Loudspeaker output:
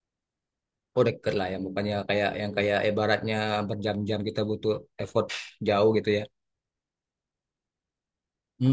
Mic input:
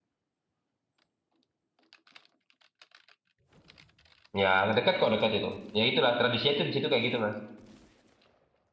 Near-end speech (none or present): present